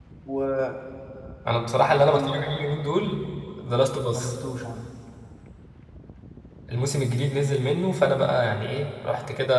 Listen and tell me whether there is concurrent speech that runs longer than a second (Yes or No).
No